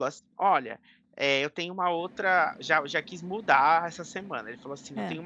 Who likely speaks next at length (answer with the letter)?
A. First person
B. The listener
A